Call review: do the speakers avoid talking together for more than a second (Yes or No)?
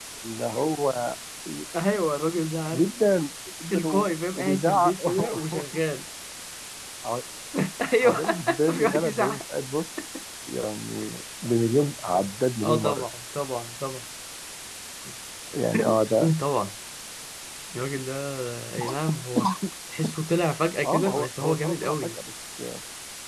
No